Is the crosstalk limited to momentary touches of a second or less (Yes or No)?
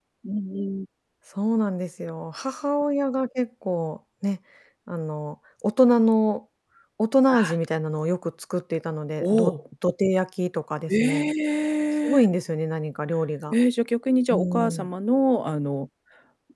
Yes